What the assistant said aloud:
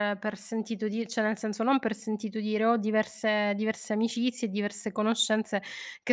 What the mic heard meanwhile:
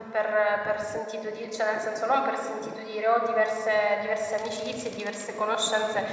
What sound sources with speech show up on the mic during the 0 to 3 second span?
echo only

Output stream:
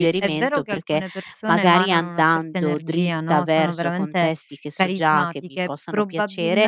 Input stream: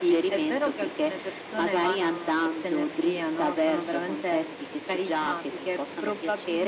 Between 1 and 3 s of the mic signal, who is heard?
echo only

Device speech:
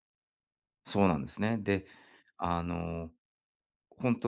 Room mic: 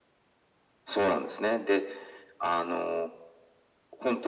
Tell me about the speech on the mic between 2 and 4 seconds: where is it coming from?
echo only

